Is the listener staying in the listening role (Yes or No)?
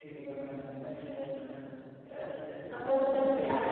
No